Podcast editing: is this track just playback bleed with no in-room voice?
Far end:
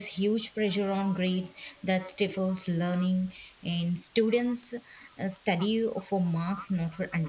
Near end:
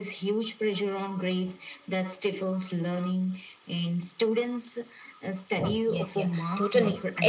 No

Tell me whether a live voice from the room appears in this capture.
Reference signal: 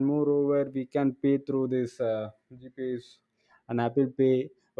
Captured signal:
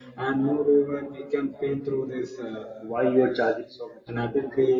Yes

